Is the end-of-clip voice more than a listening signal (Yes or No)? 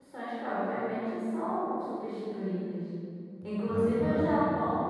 No